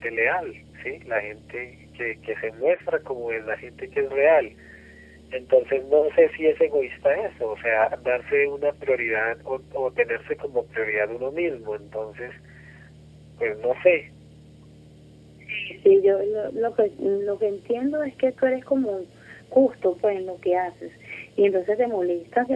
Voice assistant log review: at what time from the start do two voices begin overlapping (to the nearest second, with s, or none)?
none